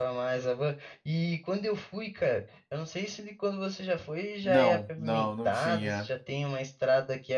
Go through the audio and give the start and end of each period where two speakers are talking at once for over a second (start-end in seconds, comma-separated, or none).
4.4-6.1